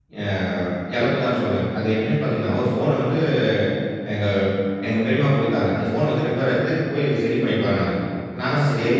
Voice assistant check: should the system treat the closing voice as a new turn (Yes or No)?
No